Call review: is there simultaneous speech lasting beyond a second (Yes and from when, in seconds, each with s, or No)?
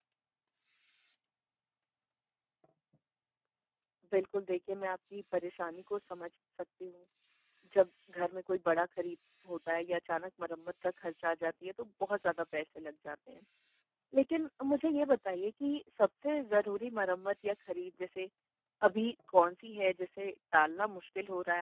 No